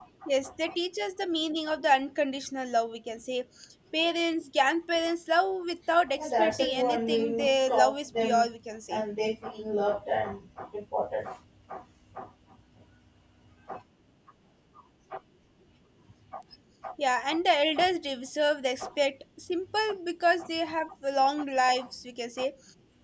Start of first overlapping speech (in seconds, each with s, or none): 6.2 s